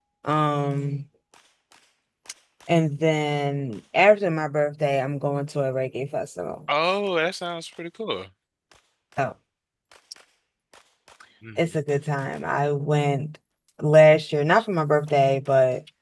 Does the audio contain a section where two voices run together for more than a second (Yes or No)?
No